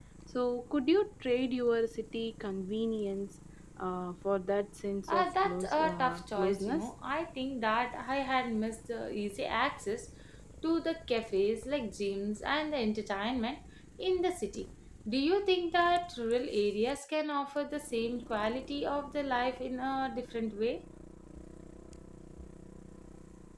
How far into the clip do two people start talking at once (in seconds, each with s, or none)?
5.1 s